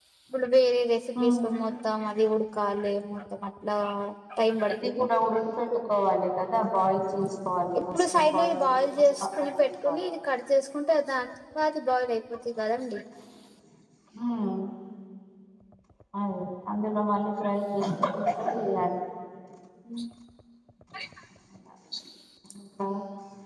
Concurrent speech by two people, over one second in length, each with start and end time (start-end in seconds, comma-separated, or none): 7.9-10.0